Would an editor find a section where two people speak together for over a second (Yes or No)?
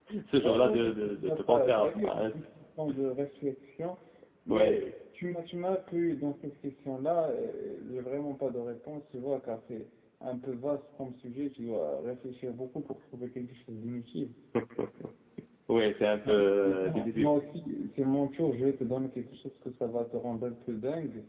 Yes